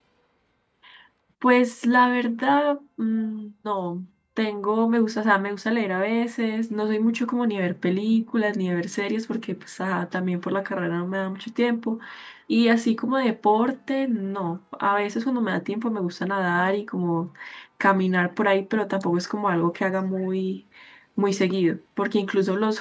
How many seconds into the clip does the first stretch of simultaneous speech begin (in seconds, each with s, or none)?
none